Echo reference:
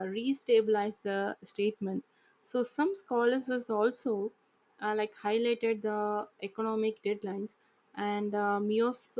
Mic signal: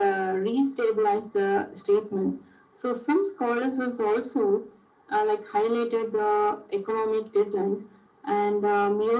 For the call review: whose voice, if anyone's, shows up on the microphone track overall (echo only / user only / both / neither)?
echo only